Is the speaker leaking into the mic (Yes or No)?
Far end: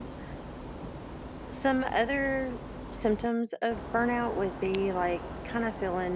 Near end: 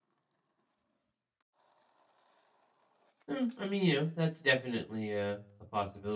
No